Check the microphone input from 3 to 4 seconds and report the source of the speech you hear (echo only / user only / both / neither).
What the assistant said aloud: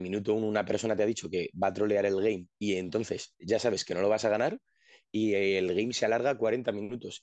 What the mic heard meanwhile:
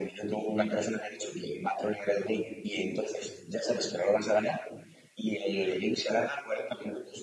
echo only